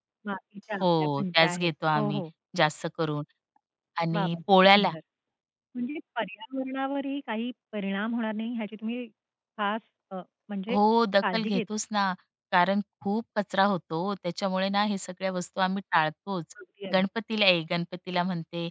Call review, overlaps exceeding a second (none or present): present